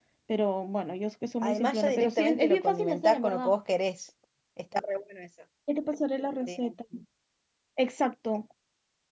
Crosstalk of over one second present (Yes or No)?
Yes